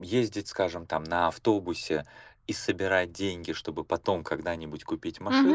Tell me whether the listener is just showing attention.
Yes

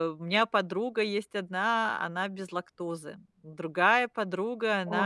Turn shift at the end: No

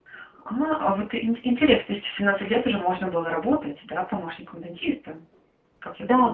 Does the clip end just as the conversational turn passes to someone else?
Yes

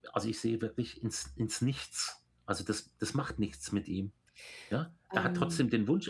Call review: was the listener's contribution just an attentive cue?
Yes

